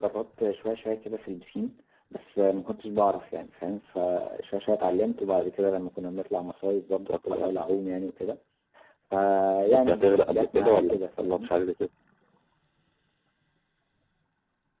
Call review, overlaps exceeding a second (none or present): present